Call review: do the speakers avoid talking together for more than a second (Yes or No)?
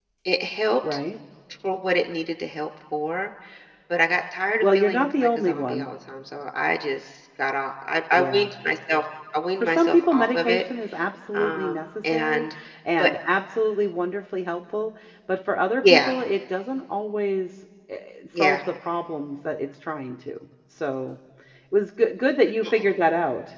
No